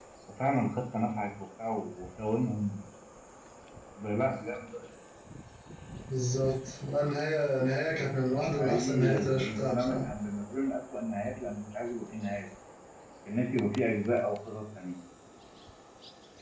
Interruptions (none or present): present